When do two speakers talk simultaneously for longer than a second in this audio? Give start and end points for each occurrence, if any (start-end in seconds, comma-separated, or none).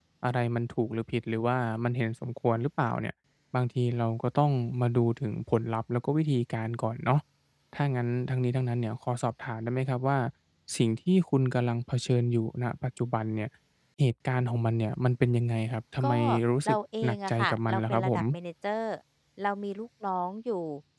16.7-18.2